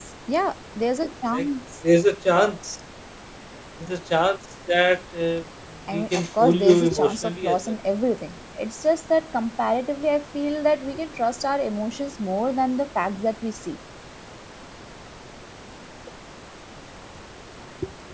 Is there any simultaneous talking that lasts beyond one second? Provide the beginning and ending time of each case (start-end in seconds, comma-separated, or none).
5.9-7.6